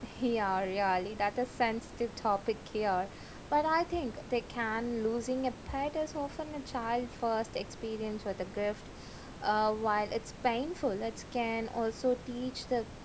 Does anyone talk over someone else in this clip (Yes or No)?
No